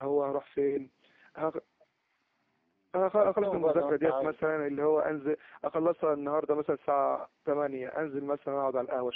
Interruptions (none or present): present